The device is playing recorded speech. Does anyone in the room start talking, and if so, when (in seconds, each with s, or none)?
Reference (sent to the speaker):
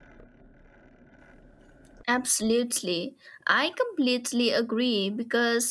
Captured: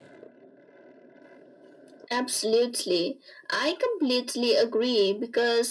none